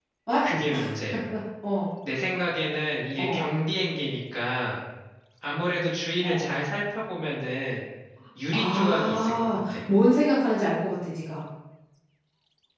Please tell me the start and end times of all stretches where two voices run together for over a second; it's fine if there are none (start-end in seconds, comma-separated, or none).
8.5-9.8